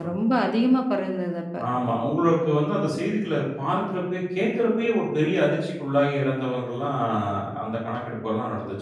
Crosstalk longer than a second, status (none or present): none